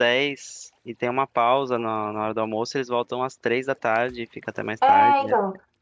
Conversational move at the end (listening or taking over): taking over